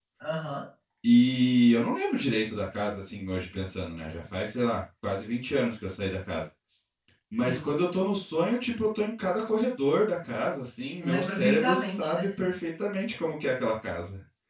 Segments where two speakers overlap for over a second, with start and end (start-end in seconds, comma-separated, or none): 11.0-12.3